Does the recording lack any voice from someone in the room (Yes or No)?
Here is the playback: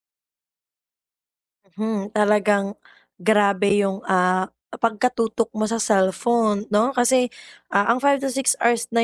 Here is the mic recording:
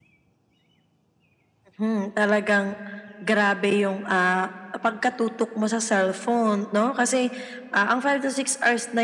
Yes